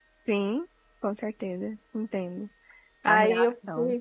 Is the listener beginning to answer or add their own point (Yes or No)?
Yes